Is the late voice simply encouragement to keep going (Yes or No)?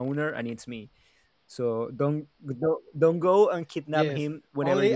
No